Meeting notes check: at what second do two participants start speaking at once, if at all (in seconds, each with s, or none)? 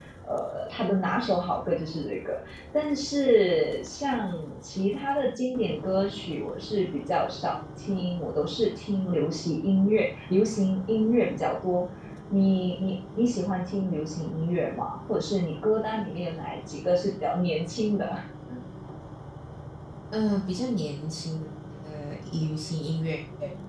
none